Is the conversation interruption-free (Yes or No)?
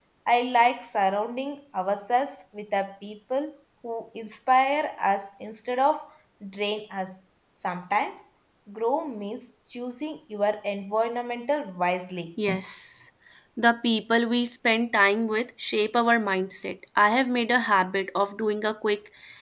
Yes